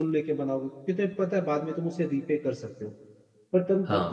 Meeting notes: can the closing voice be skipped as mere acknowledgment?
Yes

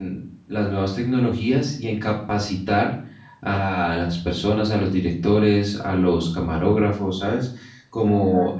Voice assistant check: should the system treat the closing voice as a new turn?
No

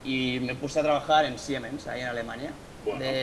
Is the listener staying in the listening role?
Yes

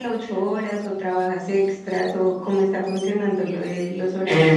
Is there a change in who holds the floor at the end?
Yes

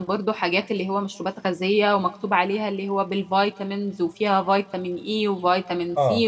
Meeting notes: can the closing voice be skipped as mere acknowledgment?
Yes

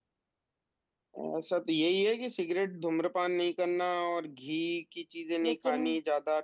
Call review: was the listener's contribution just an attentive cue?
Yes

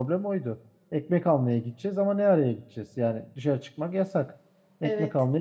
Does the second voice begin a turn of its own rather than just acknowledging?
No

